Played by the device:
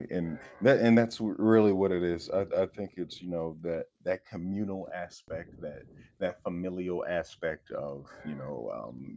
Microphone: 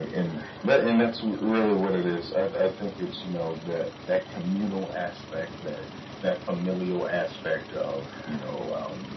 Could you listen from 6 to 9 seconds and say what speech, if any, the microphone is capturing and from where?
echo only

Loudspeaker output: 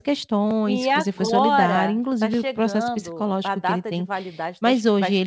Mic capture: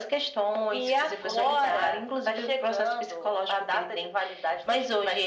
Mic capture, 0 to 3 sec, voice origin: echo only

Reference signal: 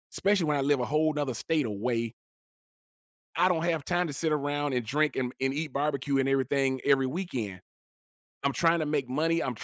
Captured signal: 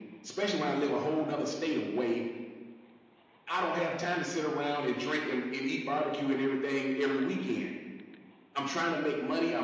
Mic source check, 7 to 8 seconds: echo only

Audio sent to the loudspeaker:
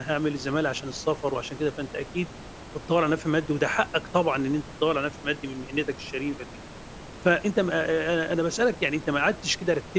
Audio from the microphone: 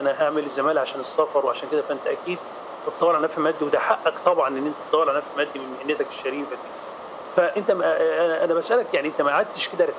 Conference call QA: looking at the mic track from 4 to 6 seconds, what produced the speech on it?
echo only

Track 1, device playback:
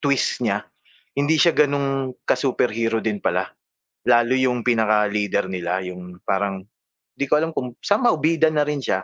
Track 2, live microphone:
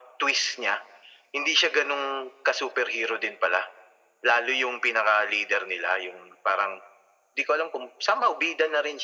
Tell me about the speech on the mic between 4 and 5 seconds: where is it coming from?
echo only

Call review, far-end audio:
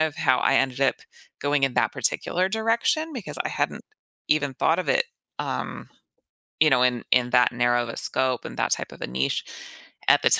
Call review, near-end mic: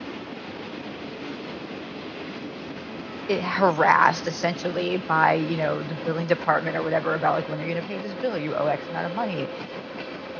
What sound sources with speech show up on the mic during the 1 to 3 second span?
neither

